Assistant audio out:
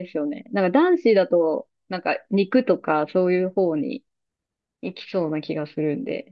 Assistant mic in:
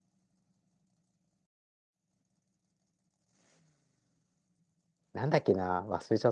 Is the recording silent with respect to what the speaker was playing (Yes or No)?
Yes